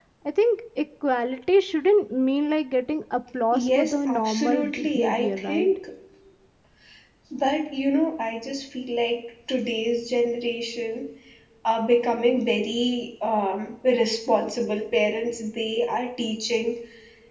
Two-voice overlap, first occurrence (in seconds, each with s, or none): 3.5 s